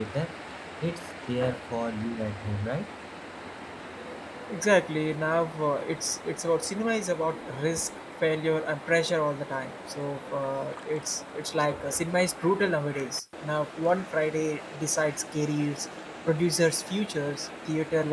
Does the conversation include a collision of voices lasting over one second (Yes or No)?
No